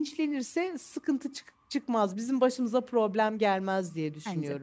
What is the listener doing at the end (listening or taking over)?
taking over